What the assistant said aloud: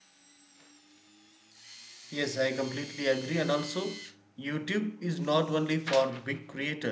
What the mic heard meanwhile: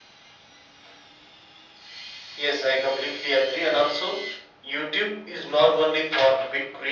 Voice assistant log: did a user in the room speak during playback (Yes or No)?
No